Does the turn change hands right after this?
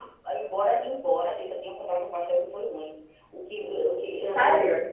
No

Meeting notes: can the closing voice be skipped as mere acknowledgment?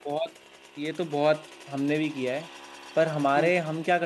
Yes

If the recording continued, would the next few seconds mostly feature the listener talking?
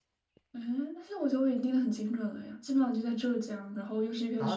Yes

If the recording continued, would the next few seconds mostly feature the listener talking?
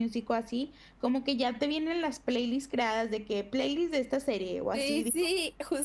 Yes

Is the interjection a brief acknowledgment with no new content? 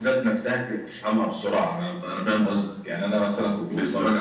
Yes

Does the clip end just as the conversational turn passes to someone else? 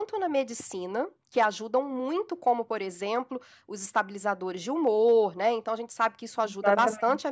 No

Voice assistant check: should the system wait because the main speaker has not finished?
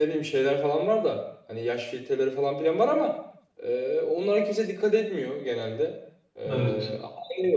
Yes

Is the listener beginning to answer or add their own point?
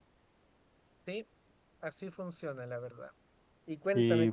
No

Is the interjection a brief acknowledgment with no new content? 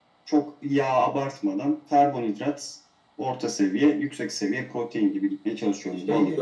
No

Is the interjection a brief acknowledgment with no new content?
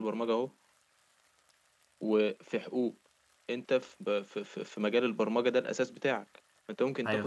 Yes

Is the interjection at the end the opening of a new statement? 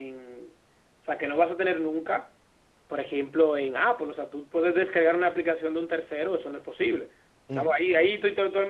No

